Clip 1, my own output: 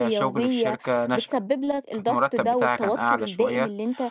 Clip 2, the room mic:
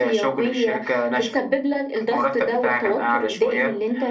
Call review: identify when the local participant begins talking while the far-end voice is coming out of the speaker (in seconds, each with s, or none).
none